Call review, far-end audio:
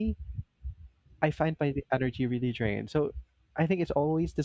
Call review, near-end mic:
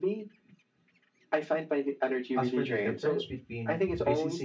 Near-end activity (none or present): present